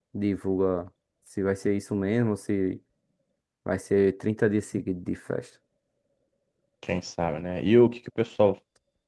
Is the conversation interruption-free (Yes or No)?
Yes